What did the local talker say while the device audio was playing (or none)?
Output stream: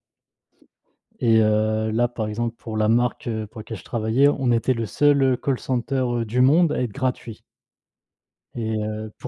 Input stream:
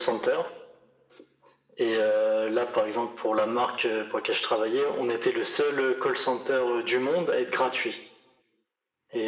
none